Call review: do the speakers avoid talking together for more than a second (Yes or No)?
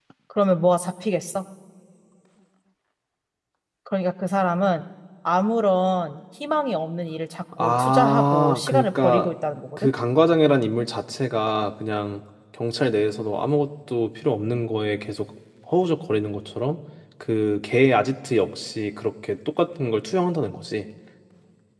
No